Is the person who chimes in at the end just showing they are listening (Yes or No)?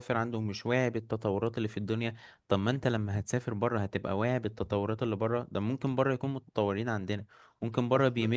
Yes